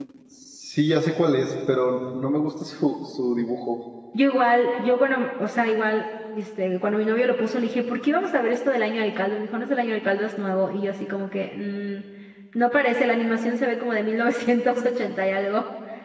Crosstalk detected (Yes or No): No